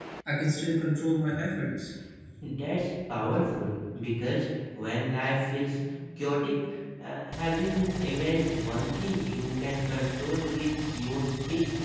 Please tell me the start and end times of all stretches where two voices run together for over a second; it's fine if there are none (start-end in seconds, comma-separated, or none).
none